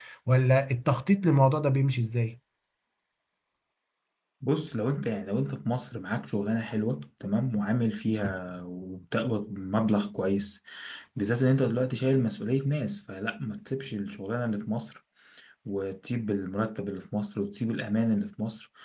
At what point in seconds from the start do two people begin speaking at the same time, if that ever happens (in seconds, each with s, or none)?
none